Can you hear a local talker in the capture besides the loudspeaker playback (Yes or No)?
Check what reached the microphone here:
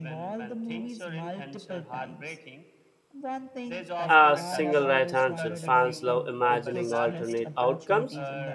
Yes